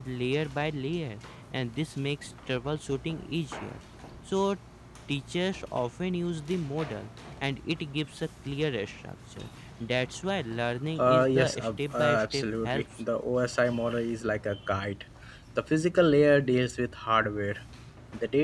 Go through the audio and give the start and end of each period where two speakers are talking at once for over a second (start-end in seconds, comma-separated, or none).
11.0-12.8